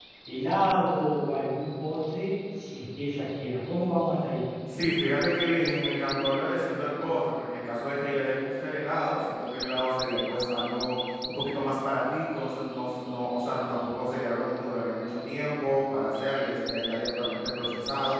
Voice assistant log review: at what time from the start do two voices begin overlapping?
none

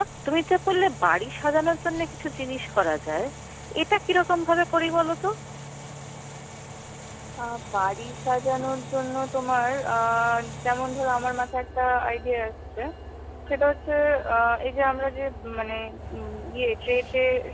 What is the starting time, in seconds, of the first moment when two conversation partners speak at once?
none

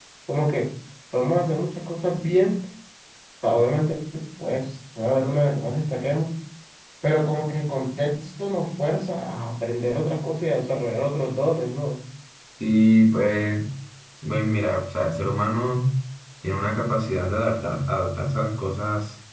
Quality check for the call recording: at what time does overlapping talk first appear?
none

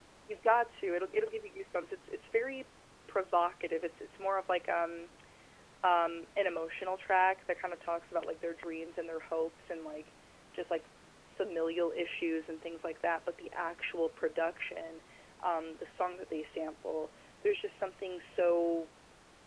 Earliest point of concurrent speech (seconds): none

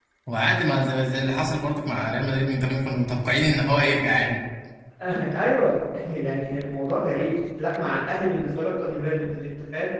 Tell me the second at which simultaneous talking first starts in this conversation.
none

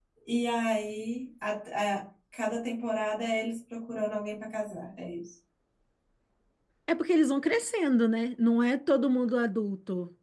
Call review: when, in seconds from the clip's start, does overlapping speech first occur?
none

